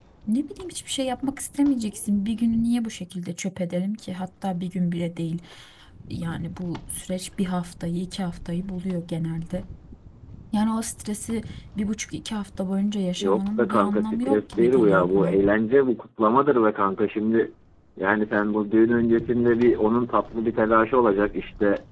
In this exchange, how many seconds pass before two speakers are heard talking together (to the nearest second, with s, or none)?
13 s